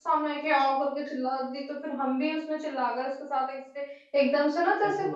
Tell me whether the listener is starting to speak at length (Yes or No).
No